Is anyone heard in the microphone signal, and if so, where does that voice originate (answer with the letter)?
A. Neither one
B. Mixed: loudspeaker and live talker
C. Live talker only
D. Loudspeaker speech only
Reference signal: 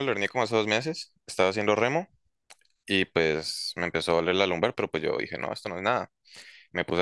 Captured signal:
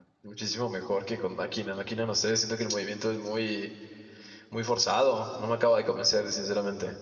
C